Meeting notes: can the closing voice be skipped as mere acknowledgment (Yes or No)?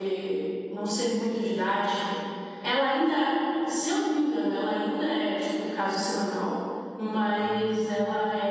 Yes